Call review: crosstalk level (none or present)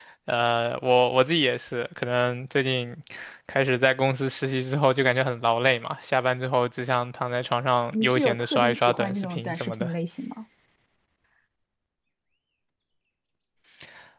present